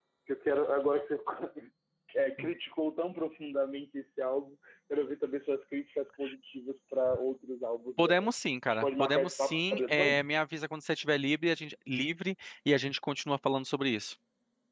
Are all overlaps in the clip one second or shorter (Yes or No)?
No